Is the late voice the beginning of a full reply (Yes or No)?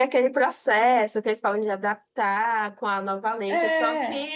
No